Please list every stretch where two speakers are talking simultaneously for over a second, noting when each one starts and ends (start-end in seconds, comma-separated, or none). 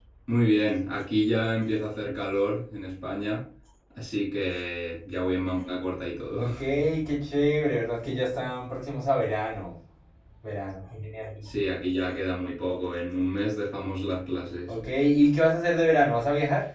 none